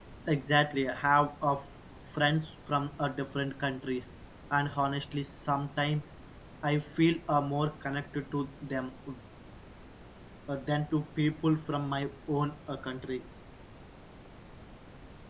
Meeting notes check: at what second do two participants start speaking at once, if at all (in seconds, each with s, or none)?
none